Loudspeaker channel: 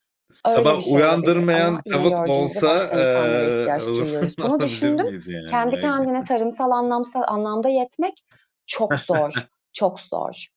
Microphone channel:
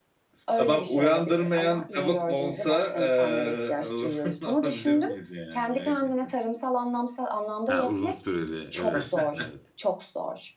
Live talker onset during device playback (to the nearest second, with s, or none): 8 s